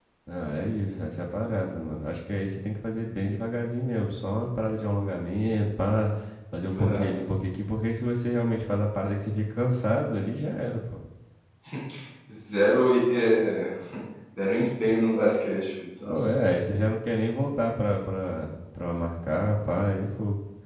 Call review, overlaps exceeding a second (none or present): none